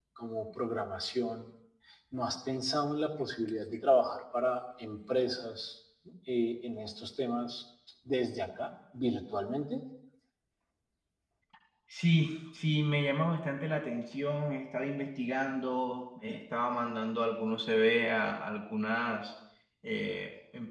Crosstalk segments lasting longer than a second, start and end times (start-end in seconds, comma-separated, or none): none